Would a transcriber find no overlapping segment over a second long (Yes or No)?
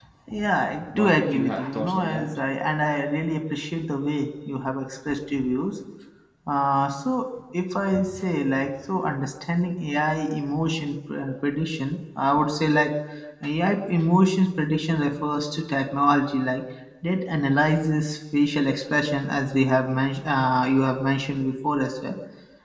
No